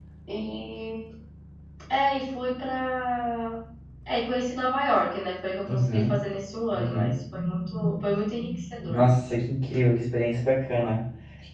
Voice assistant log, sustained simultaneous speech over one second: none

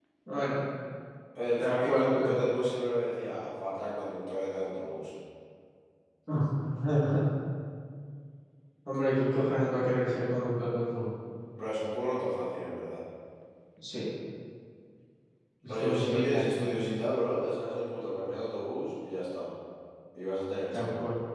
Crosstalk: present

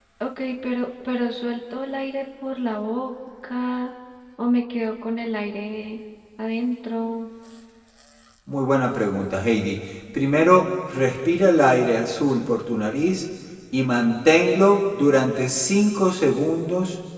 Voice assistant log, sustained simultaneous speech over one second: none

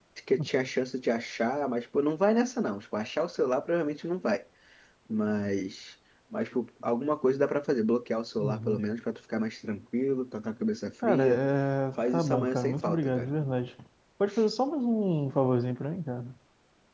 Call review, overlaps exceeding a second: present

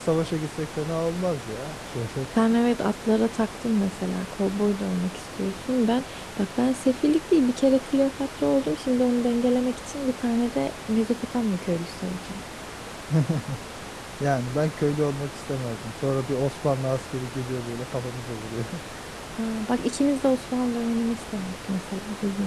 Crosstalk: none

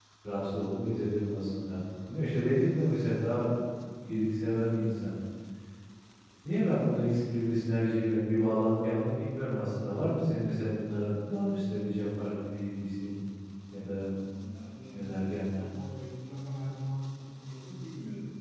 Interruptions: none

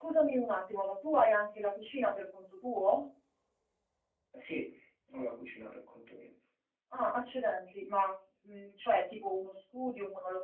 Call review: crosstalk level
none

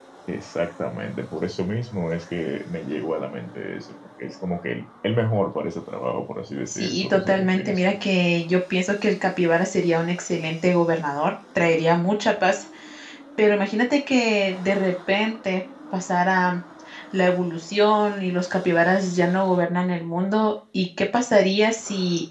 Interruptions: present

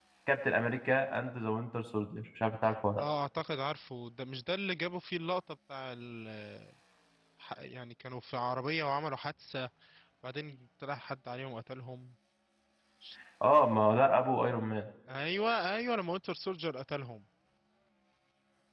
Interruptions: none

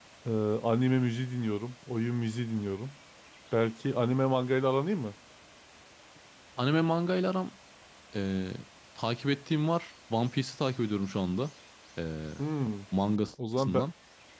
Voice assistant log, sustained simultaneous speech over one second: none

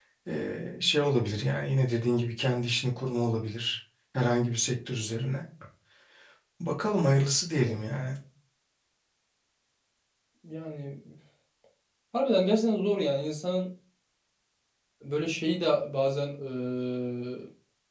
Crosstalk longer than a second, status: none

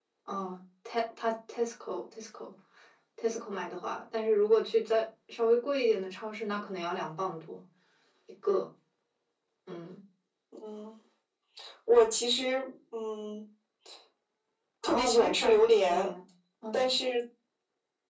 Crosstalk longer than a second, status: present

